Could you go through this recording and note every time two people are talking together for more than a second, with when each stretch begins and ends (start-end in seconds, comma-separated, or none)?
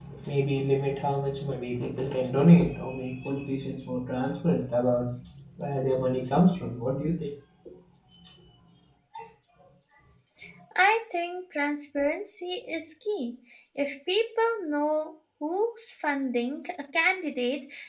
none